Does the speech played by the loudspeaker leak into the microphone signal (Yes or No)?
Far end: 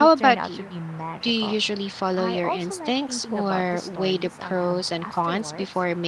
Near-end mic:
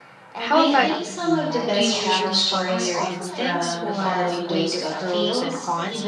Yes